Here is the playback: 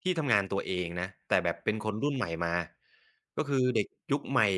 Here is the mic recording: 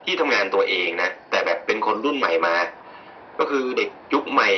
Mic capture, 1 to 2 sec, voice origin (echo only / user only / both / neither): echo only